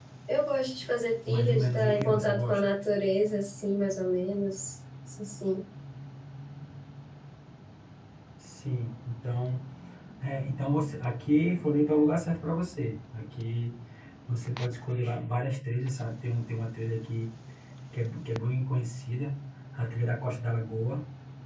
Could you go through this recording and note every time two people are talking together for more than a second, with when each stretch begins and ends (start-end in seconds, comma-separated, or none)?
1.3-2.6